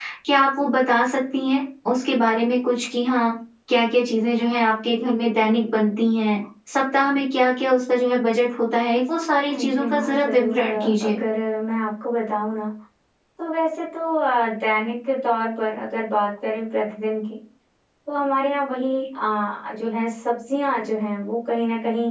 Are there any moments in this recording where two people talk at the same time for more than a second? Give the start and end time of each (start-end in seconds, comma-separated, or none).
9.5-11.2